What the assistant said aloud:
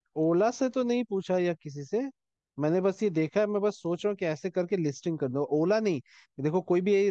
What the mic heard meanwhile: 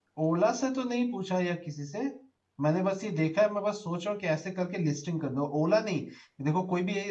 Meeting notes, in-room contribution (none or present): none